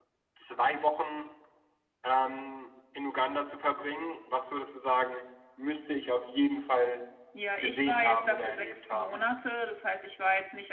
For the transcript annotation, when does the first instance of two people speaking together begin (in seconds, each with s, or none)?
7.6 s